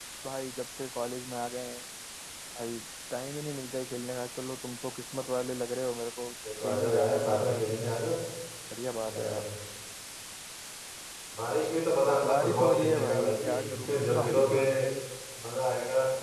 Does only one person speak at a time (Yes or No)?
No